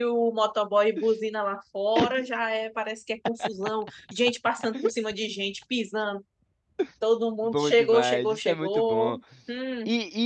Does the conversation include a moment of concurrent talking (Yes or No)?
Yes